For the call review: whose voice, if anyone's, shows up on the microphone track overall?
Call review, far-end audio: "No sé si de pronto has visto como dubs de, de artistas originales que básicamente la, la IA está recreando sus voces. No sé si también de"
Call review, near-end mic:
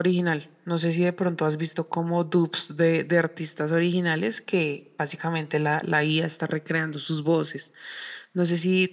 echo only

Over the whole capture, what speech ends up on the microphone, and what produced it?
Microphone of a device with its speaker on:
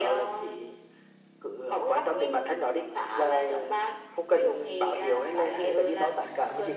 echo only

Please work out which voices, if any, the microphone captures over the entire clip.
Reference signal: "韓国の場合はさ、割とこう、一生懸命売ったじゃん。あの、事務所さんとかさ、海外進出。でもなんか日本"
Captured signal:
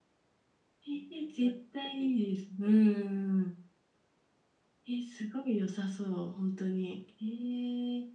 user only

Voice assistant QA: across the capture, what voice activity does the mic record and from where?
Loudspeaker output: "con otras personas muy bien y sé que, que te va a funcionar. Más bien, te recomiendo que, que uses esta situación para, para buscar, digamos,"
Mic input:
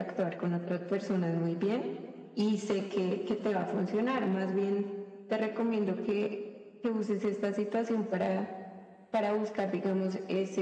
echo only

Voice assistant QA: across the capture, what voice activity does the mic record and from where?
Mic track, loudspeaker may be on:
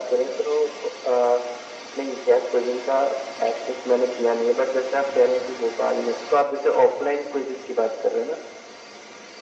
echo only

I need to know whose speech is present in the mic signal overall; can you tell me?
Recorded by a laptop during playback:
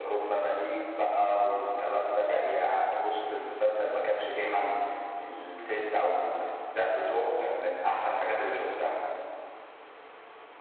echo only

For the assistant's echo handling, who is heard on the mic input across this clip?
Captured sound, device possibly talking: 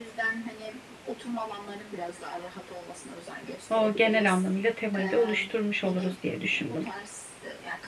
both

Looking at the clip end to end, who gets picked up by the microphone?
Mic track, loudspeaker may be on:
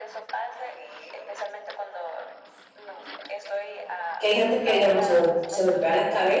both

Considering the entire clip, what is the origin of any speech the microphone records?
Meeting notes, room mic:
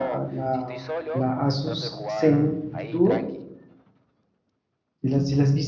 both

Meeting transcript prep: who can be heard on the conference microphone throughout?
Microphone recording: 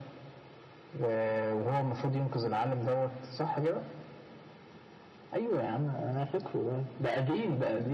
echo only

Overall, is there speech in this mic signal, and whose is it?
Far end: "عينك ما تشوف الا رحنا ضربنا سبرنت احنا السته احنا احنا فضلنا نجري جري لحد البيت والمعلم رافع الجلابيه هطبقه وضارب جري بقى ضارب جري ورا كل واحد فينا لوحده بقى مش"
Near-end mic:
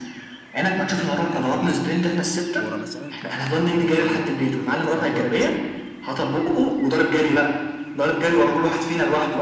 both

